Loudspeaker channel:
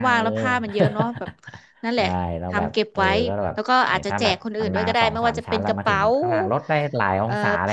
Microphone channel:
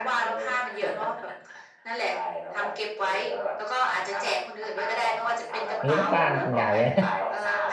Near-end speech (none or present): present